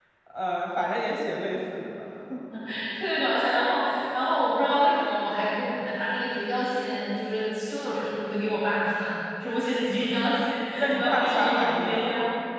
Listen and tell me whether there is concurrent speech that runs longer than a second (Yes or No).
Yes